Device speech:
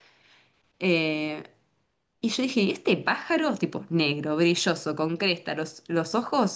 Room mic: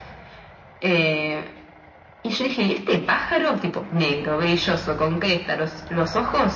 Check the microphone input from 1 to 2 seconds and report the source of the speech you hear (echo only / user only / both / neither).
echo only